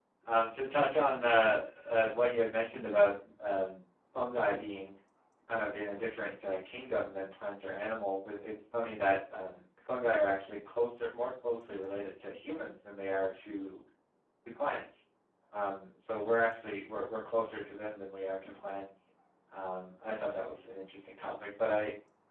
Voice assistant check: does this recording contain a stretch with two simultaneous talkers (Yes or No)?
No